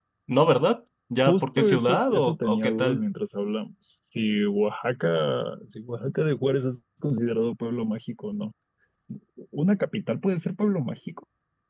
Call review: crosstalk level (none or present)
present